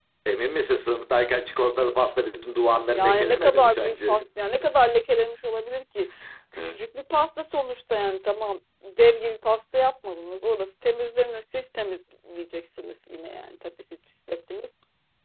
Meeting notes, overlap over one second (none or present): present